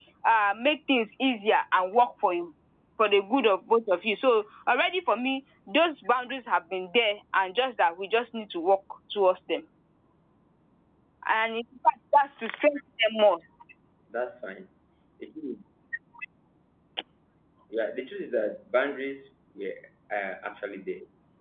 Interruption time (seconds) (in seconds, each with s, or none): none